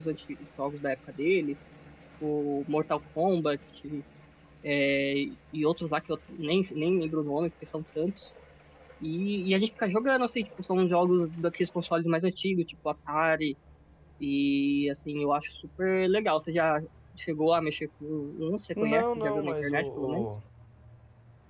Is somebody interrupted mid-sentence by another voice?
Yes, from 18.8 s

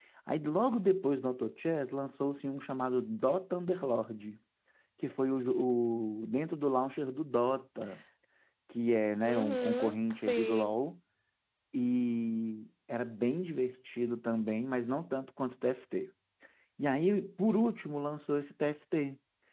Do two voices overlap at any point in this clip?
Yes, from 9.2 s

